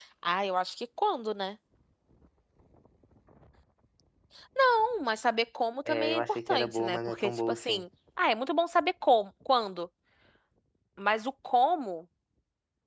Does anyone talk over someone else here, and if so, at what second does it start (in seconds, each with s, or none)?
5.9 s